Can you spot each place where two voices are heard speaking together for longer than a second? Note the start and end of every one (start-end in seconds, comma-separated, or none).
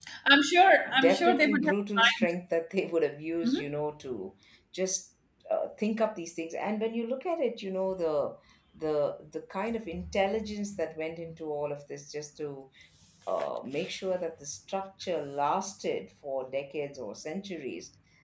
1.0-2.3